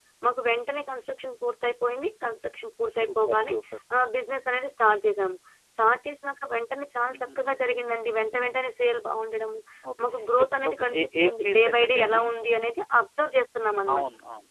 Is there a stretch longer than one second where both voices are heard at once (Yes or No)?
Yes